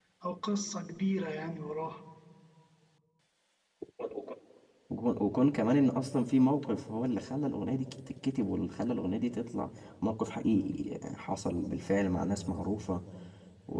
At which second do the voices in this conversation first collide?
none

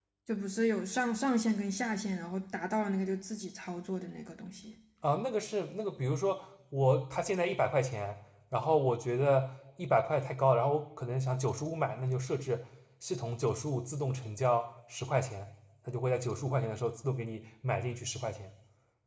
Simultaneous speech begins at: none

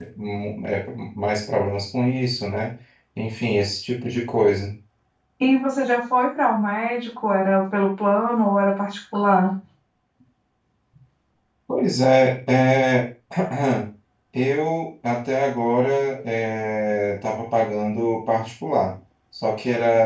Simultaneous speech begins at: none

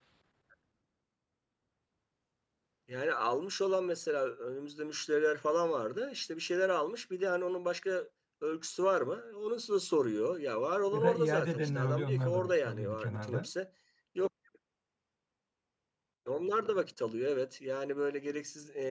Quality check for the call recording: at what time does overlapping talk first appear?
11 s

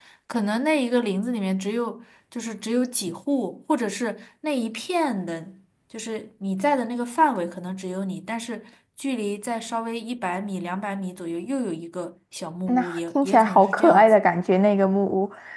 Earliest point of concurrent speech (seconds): 13 s

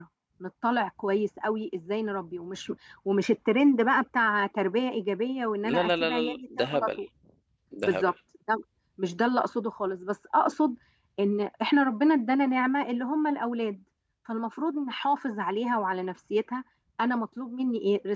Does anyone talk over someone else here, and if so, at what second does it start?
6 s

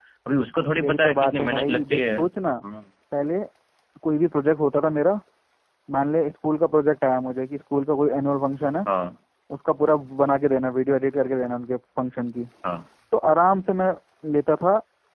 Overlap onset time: 1 s

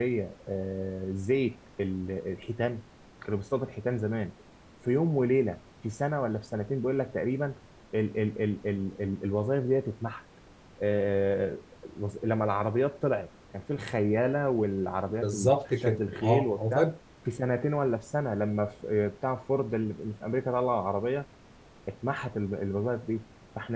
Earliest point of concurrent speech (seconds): 15 s

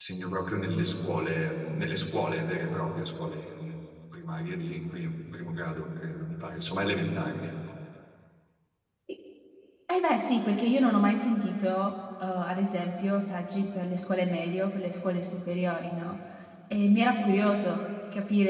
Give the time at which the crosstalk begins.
none

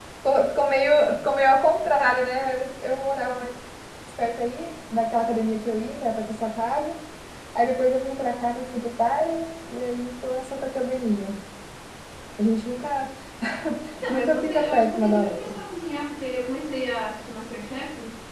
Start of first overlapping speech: 14 s

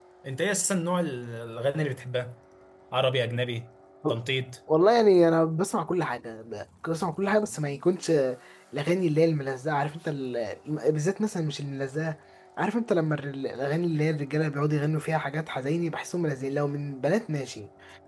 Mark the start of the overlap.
none

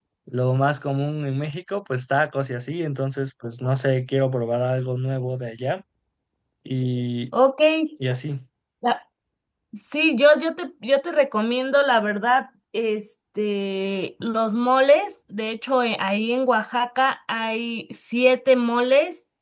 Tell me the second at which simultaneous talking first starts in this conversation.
none

